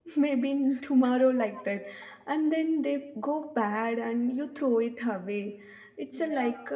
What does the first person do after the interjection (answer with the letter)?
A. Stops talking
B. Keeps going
B